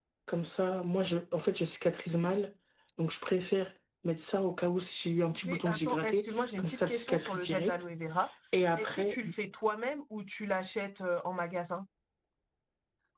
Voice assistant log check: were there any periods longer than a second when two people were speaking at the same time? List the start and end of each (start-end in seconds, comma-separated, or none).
5.2-7.8